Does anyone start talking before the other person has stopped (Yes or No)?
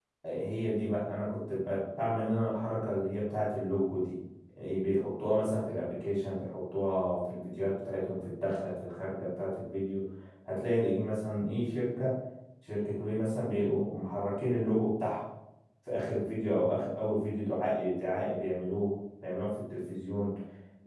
No